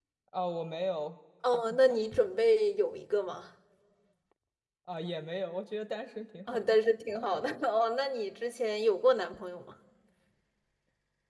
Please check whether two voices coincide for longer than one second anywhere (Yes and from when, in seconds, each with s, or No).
No